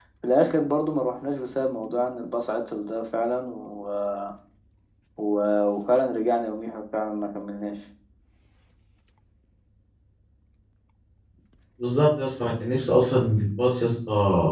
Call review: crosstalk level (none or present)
none